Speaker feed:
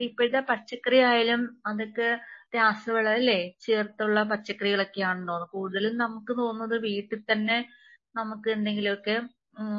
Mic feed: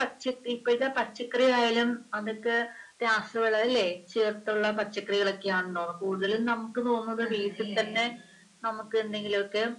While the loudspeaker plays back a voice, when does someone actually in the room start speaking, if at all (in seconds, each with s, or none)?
7.3 s